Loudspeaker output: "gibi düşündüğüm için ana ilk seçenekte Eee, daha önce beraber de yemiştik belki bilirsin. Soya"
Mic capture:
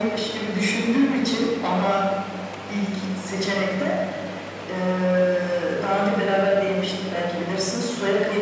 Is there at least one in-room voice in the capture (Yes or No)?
No